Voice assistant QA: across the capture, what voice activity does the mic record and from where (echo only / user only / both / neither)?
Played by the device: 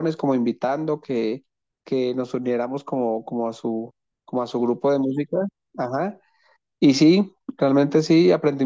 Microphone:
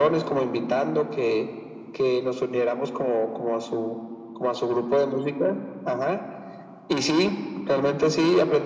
echo only